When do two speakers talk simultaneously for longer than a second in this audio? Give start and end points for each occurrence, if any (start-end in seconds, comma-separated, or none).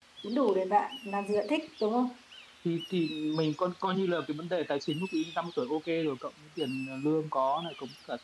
none